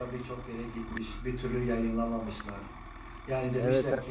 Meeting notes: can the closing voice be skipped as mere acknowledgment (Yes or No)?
Yes